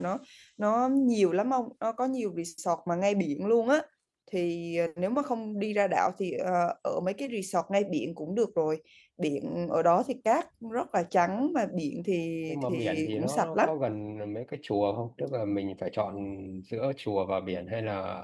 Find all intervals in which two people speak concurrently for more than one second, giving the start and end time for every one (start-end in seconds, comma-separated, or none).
12.5-13.7